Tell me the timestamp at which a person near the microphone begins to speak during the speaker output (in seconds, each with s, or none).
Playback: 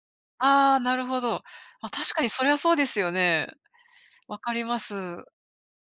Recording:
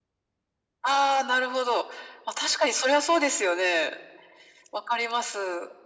none